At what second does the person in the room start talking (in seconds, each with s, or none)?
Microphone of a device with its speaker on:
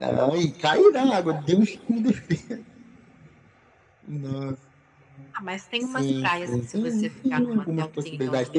none